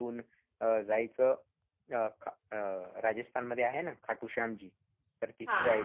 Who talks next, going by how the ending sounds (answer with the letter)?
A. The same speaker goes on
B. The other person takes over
A